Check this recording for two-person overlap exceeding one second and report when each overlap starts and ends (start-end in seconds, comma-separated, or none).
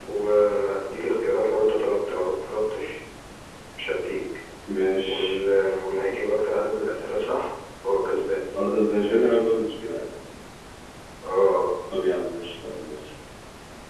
none